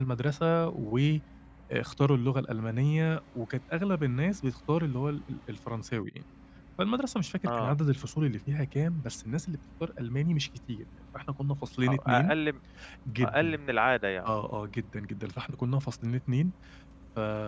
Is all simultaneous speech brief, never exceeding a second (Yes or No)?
Yes